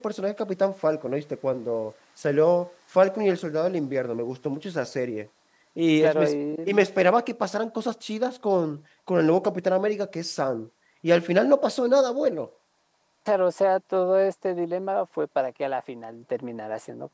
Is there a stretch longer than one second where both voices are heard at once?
No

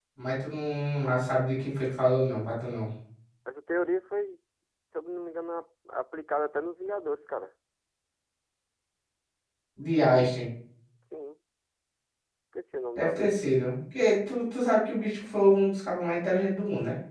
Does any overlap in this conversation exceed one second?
No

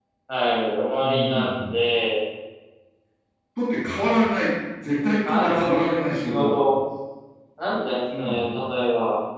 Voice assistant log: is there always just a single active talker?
No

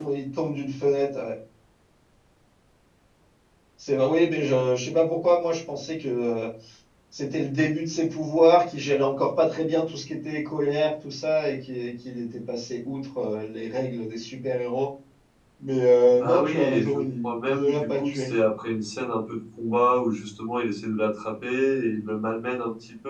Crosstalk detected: Yes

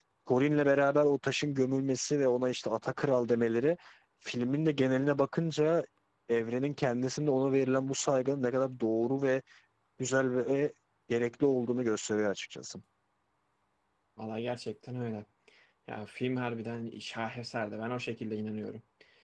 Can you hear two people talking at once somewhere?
No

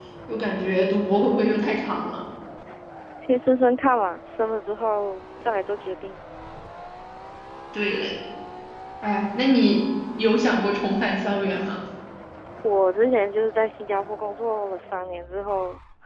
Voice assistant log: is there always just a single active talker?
Yes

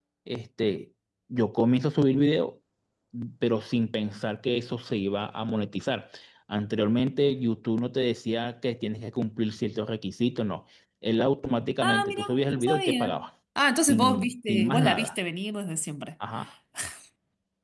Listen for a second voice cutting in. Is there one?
Yes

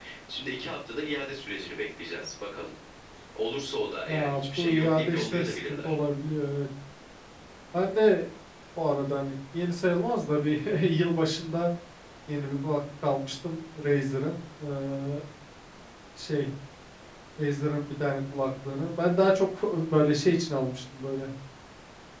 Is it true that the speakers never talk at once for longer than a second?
No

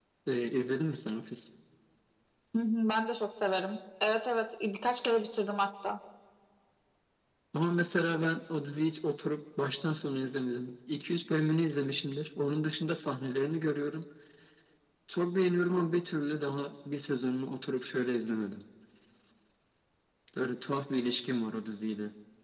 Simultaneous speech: No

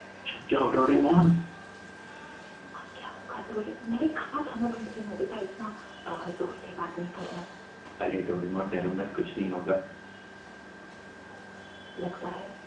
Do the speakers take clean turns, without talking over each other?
Yes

